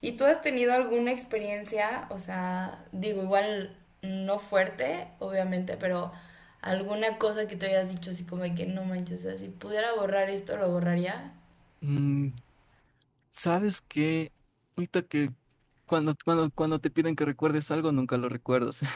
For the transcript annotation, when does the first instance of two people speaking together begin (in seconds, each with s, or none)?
none